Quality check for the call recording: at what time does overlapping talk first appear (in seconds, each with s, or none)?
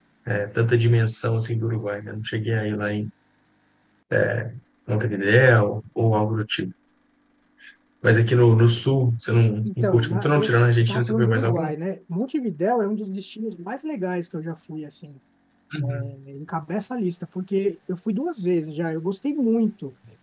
9.7 s